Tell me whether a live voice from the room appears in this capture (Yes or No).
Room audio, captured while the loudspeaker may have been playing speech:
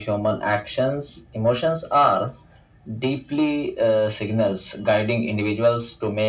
No